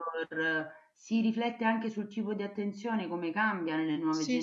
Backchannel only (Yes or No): No